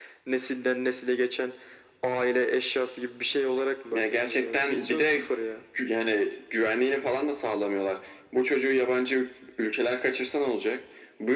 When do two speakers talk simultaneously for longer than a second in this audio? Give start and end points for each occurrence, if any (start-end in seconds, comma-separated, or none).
3.9-5.2